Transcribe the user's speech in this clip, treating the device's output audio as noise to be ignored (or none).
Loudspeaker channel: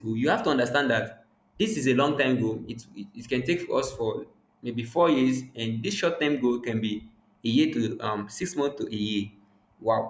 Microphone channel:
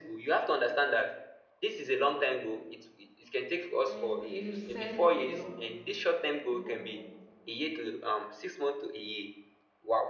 honestly you said a lot like a whole lot